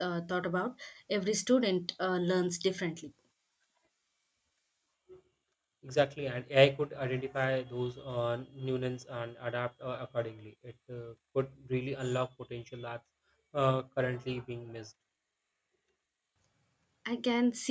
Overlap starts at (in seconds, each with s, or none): none